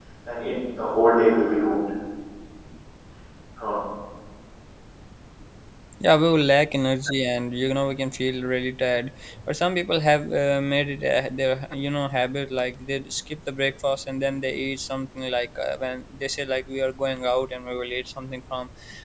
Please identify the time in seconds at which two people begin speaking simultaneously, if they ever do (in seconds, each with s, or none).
none